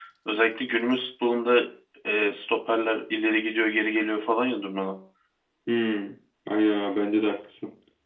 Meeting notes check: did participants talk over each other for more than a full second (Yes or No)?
No